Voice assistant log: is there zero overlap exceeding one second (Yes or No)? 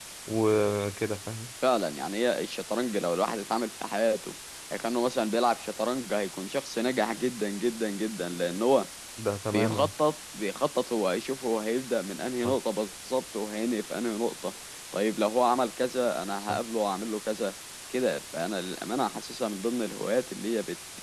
Yes